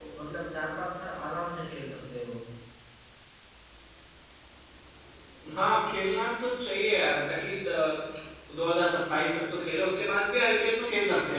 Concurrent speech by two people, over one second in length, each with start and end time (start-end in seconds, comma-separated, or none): none